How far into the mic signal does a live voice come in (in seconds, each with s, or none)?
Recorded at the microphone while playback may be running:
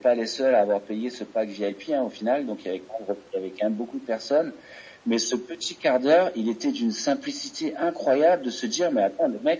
none